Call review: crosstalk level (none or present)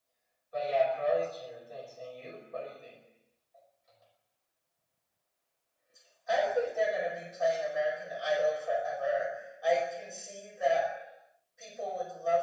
none